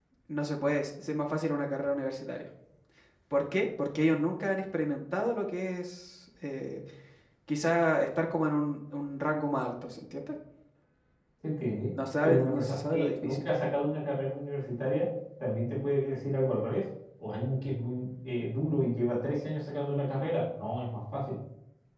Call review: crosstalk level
present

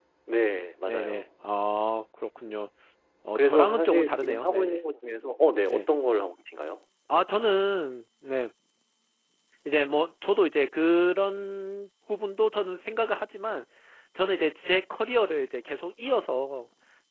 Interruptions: present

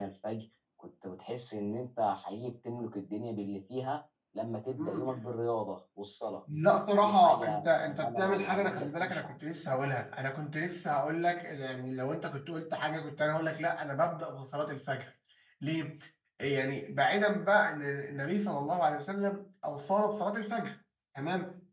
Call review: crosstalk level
present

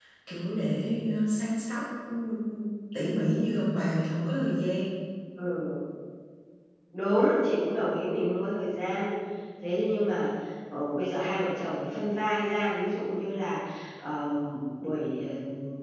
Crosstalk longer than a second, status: none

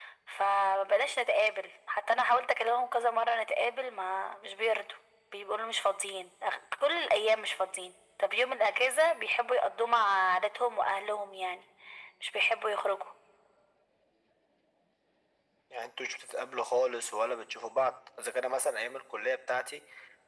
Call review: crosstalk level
none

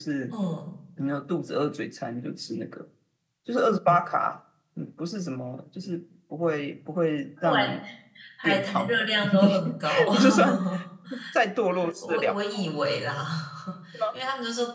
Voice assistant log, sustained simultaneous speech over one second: present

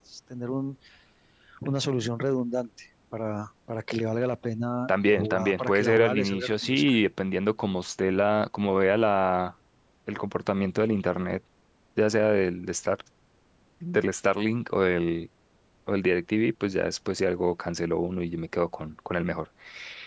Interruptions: present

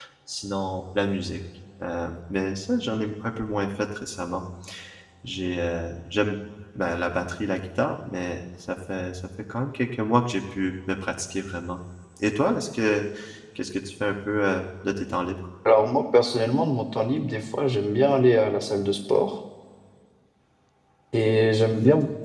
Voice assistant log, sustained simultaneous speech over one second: none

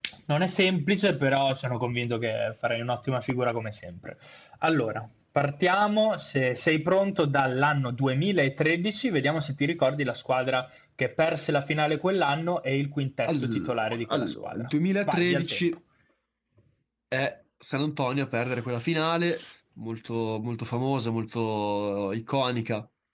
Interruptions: present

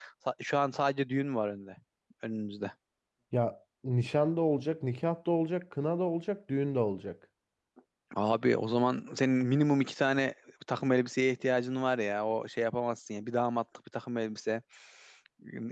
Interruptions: none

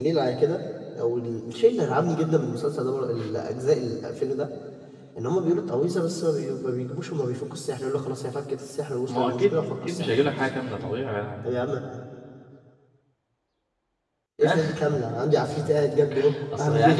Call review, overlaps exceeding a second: present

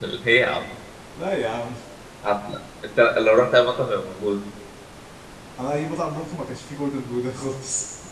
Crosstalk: none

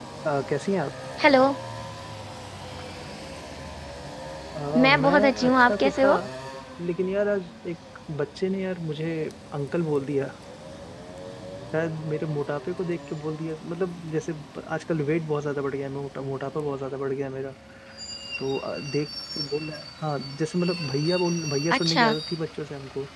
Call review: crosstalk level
present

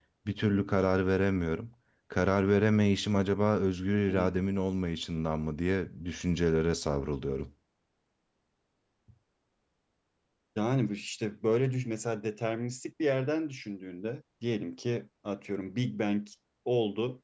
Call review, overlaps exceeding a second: none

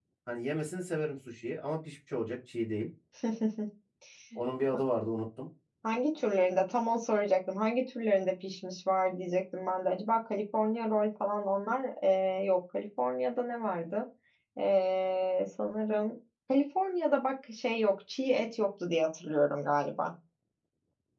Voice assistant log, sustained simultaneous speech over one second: none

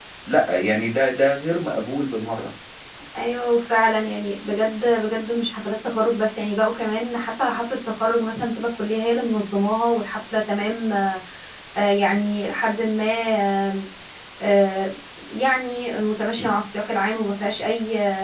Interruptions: none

